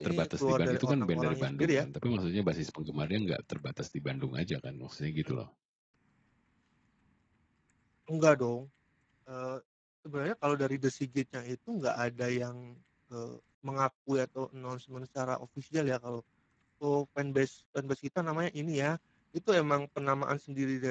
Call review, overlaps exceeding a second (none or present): present